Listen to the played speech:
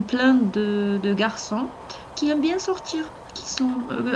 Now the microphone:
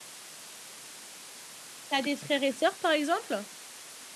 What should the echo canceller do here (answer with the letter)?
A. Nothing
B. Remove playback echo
A